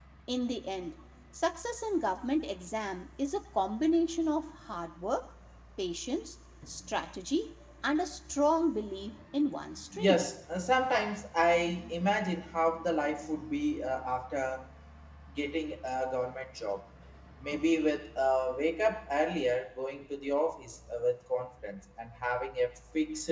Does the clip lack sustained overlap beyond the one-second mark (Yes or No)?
Yes